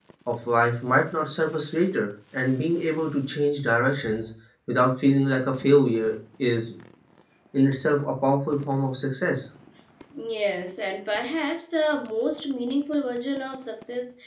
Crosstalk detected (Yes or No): No